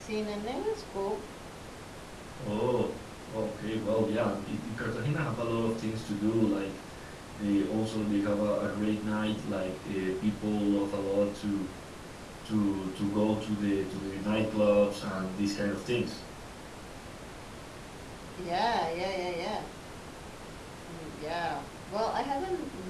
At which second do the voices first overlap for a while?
none

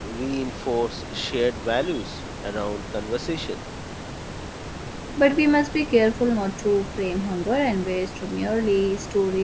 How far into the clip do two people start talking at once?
none

